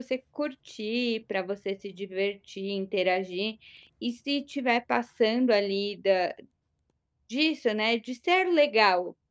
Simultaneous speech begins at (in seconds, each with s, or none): none